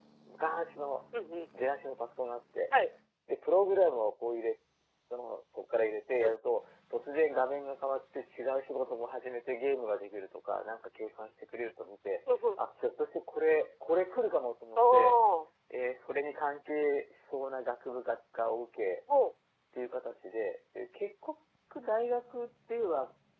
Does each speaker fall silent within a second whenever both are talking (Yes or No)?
Yes